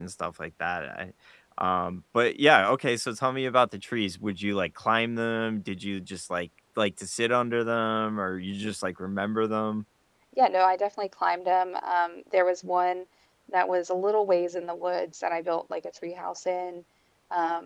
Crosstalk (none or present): none